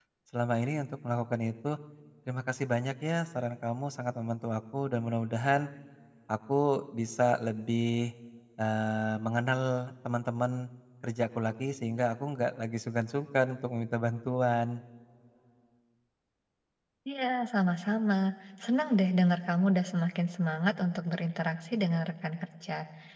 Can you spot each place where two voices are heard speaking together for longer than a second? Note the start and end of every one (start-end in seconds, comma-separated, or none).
none